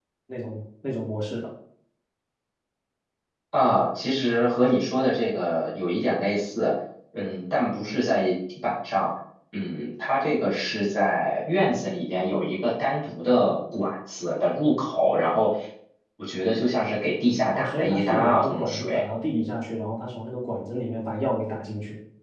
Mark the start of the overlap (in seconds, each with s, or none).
17.5 s